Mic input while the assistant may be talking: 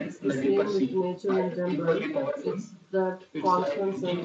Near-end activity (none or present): present